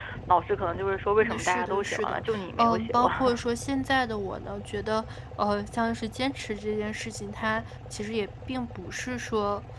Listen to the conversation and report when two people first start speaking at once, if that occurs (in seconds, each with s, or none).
1.2 s